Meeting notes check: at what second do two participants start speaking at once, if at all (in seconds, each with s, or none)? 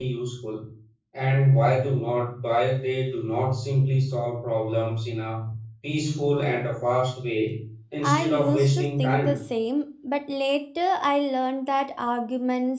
8.0 s